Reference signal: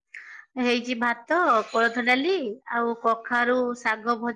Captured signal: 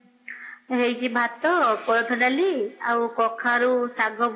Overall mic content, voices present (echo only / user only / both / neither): echo only